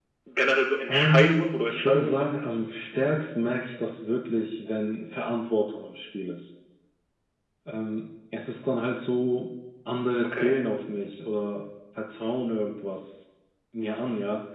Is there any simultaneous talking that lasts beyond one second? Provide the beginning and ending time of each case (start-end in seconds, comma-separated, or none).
0.9-2.5